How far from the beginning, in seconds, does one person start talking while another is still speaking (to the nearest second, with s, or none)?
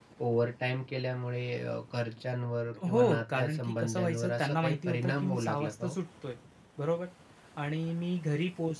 3 s